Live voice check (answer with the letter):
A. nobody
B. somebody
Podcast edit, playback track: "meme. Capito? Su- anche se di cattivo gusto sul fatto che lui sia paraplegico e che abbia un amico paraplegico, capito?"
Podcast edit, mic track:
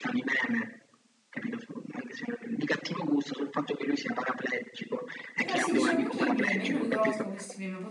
B